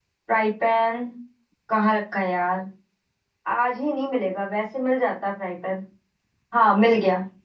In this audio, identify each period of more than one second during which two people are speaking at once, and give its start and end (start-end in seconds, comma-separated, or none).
none